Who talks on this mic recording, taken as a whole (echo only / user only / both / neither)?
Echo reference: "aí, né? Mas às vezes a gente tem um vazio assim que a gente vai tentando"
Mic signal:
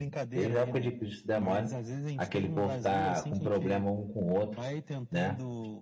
both